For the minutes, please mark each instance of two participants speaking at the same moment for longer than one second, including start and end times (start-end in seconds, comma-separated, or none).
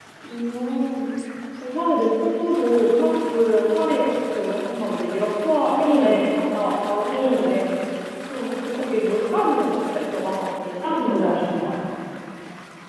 none